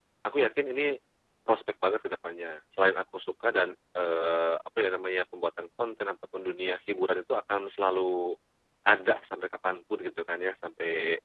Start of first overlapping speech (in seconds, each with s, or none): none